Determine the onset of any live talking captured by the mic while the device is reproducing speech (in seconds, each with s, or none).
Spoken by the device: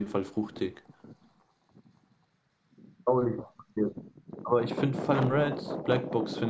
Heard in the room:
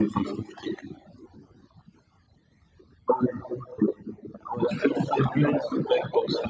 none